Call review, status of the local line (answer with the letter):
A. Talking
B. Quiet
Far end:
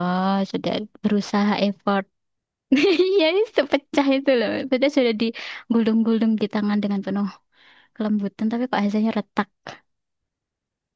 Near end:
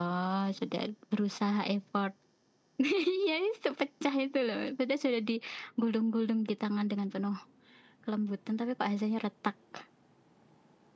B